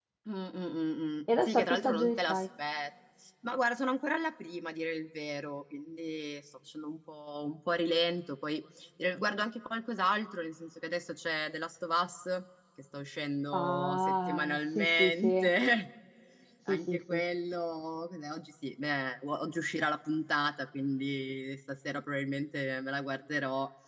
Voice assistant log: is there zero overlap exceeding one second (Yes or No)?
No